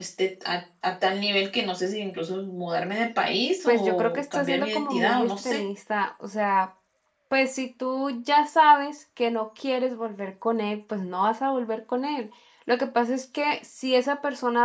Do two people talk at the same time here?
Yes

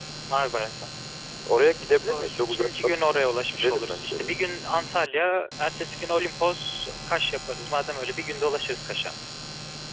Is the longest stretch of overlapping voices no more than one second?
No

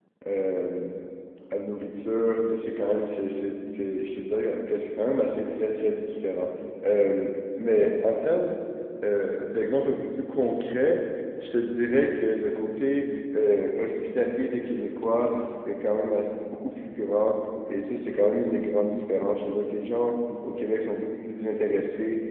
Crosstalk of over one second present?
No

